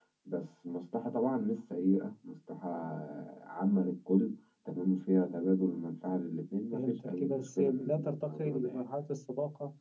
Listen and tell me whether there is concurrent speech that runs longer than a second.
Yes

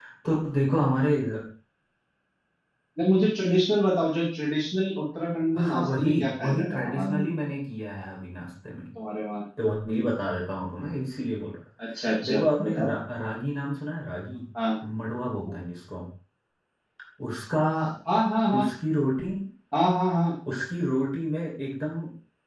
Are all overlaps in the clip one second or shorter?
No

